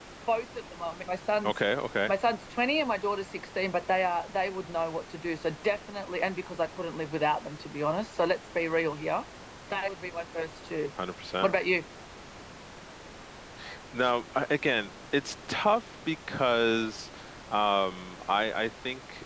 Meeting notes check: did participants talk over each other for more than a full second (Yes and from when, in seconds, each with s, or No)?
No